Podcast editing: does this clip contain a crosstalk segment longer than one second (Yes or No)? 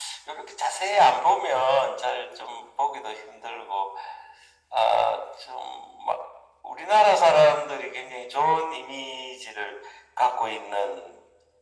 No